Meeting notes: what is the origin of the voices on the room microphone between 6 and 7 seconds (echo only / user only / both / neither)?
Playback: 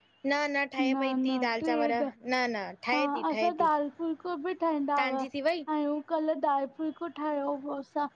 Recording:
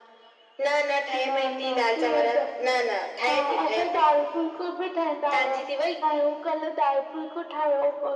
echo only